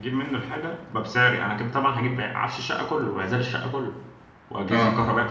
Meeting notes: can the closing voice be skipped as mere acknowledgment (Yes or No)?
Yes